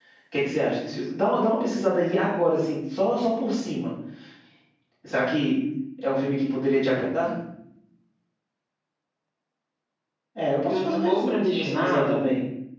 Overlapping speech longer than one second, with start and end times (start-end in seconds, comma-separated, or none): 10.7-12.2